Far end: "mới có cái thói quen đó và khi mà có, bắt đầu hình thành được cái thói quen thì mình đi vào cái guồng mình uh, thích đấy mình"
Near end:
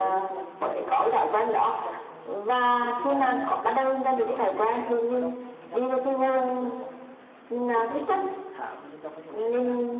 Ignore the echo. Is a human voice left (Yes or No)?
Yes